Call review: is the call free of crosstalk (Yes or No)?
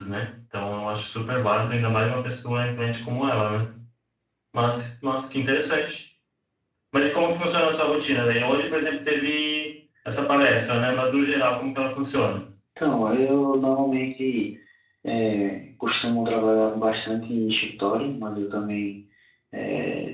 Yes